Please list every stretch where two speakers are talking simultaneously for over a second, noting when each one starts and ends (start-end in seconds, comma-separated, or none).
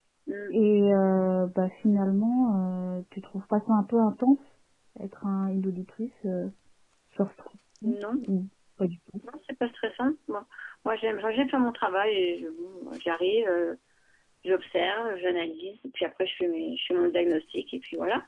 none